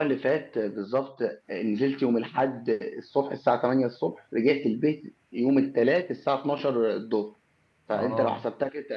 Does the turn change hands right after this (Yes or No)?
No